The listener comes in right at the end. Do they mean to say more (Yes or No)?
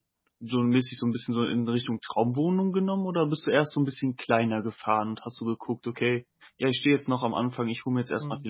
No